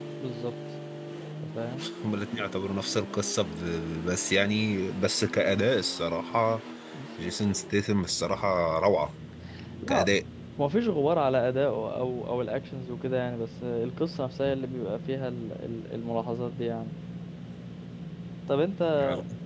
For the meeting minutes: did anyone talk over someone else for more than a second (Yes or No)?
No